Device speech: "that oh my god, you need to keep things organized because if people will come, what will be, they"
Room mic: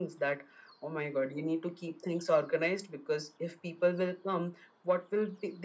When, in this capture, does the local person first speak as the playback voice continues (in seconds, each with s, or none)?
none